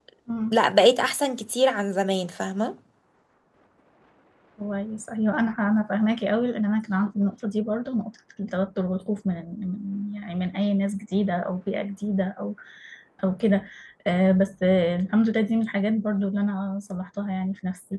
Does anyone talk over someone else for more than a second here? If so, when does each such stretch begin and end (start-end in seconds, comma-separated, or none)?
none